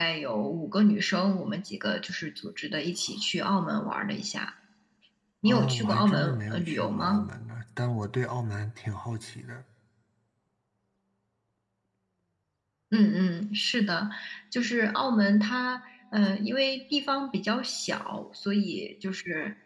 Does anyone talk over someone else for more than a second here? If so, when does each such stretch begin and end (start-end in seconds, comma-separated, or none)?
5.5-7.3